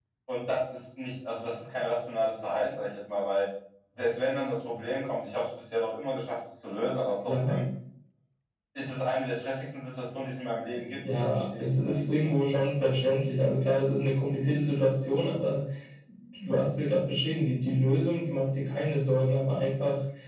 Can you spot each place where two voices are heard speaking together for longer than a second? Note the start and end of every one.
11.1-12.3

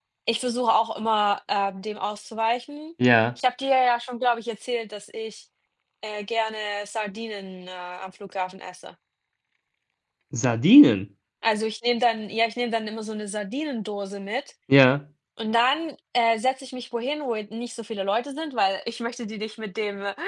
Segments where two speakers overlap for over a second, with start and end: none

